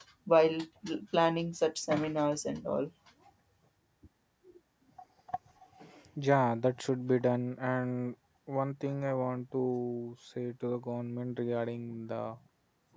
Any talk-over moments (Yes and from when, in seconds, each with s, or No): No